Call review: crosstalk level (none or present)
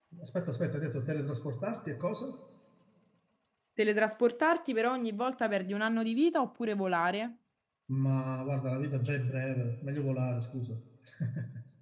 none